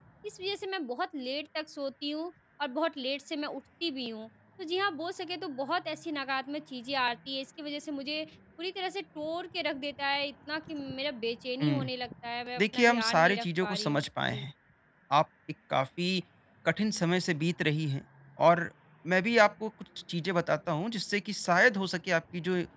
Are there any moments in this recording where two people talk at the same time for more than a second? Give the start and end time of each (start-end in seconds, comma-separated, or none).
12.6-14.4